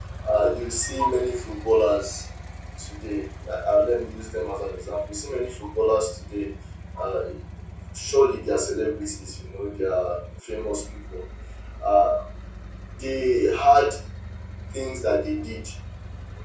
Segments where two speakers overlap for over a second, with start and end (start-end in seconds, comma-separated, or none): none